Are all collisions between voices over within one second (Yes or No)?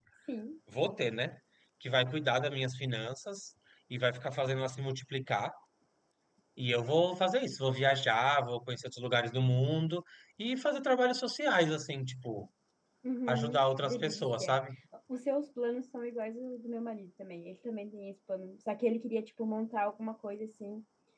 No